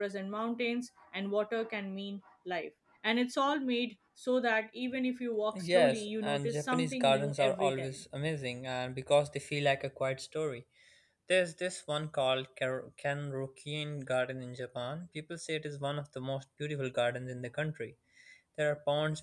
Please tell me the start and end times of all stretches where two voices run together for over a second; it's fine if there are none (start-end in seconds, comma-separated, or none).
5.6-8.0